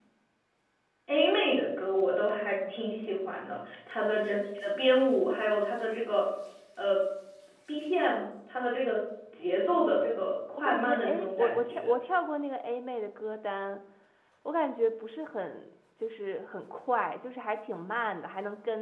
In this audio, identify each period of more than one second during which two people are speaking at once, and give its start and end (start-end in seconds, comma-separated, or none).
10.6-11.8